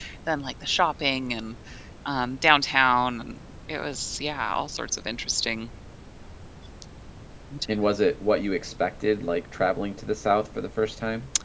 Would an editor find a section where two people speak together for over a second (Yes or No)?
No